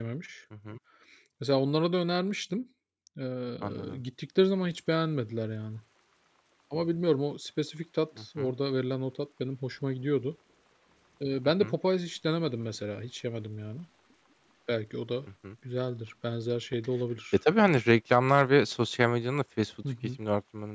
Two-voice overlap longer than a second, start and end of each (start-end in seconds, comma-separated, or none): none